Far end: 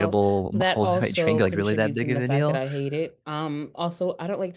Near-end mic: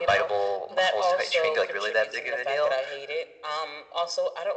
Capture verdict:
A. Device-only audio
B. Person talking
A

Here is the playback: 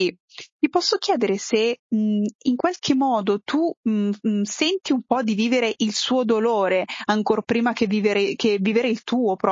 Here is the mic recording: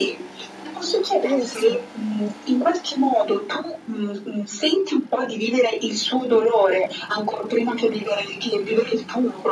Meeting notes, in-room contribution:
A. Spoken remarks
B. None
A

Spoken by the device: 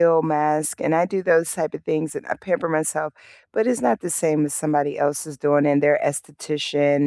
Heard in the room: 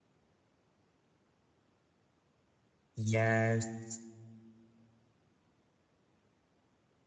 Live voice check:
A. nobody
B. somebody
B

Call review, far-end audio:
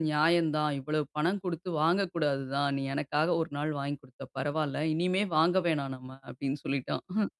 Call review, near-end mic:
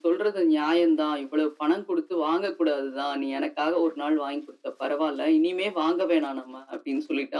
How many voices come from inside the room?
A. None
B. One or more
A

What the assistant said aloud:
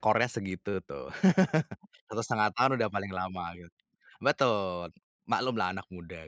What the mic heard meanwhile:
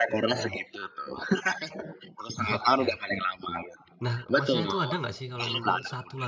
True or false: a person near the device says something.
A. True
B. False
A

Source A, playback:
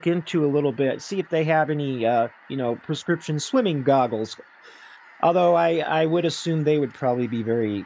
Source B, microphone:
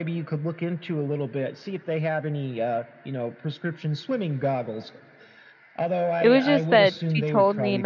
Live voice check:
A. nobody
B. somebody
B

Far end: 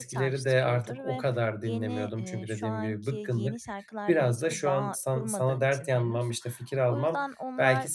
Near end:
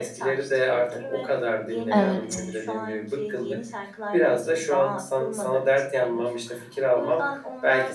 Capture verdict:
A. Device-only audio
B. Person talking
B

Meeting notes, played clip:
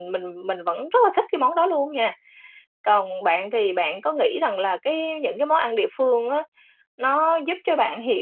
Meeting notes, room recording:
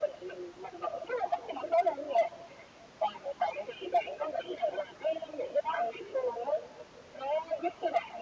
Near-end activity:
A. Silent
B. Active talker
A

